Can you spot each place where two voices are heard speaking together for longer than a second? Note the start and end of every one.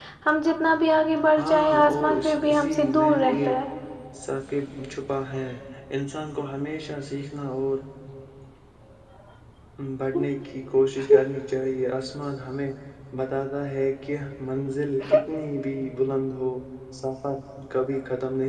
1.4-3.6

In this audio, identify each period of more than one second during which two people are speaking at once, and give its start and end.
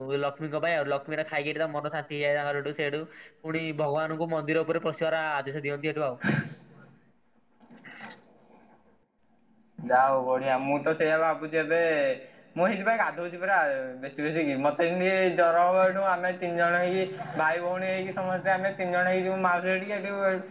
none

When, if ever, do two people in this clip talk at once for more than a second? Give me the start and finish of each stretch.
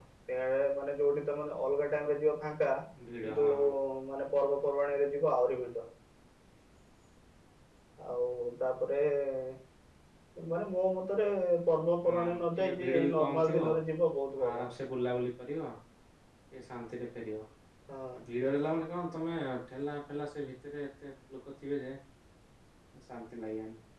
12.1-13.7

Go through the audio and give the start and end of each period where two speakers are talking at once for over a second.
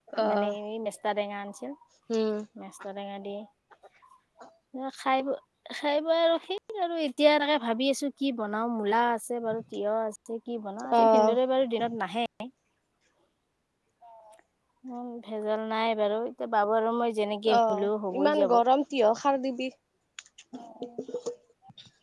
none

